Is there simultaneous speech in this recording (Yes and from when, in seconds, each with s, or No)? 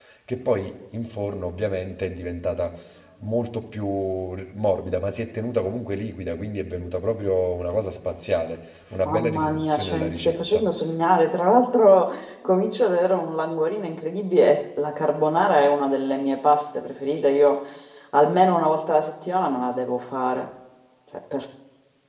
Yes, from 9.0 s